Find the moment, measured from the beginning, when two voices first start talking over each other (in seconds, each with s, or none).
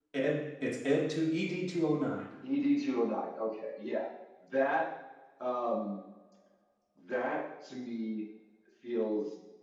none